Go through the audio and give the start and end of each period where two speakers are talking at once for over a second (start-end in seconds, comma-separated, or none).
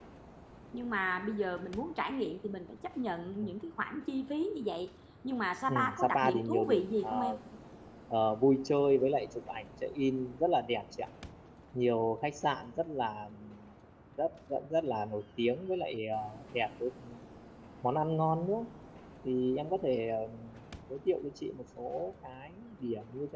5.7-7.1